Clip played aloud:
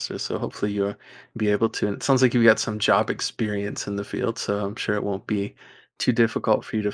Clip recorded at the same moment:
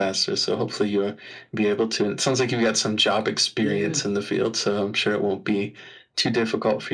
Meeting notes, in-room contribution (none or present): present